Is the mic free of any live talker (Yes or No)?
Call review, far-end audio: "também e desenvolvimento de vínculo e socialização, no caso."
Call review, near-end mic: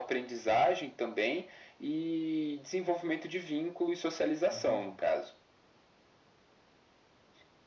No